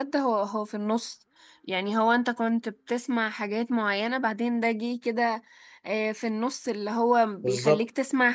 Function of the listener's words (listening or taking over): listening